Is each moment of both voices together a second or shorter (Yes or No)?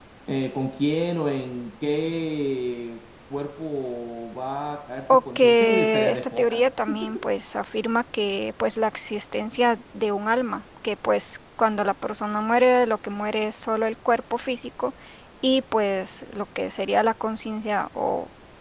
No